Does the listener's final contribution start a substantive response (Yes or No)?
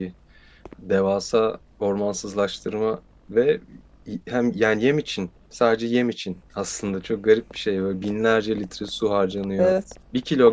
No